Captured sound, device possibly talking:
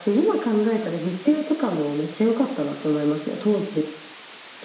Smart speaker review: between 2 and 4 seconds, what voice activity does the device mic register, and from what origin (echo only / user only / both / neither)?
echo only